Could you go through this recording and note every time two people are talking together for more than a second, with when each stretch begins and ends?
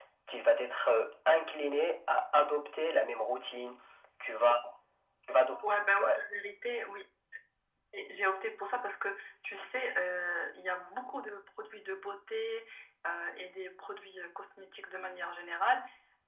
none

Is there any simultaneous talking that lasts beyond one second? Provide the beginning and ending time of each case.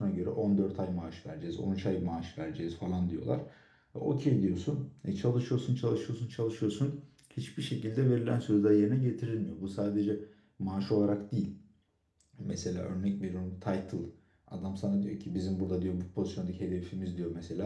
none

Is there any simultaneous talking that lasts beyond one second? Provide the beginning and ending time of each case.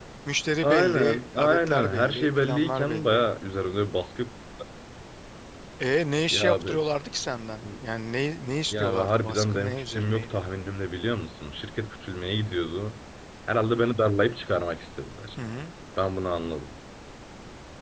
0.6-3.2, 8.7-10.4

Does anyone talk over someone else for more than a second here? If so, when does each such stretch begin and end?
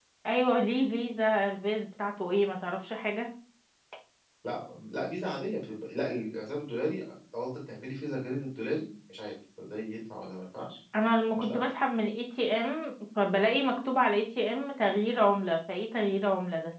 none

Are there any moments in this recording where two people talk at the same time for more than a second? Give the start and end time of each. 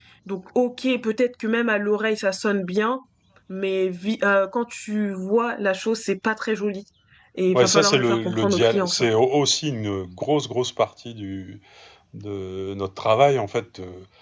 7.5-9.0

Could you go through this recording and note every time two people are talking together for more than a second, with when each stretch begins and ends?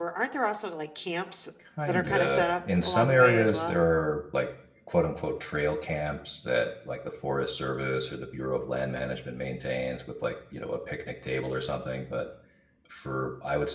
1.9-3.8

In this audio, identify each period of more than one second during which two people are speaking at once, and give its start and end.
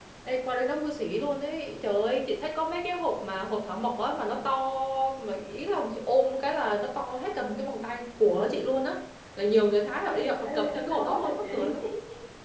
10.0-11.7

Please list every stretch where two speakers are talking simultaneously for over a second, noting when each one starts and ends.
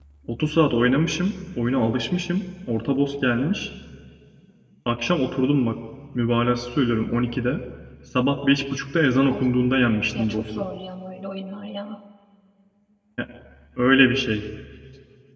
none

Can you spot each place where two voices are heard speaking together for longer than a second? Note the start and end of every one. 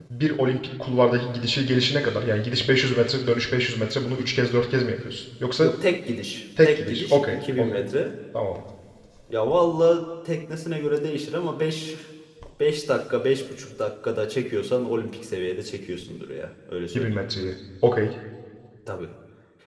6.6-7.8

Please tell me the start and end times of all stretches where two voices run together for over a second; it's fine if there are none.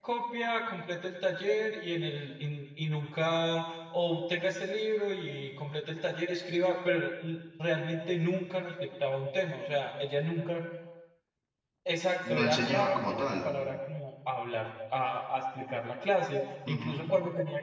12.3-13.5

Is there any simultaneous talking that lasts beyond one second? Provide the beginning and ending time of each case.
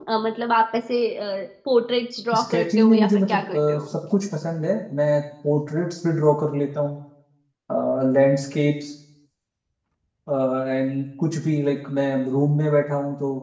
2.4-3.8

